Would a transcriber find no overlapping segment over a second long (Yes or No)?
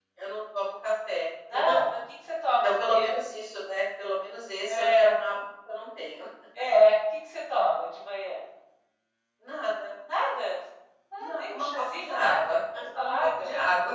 No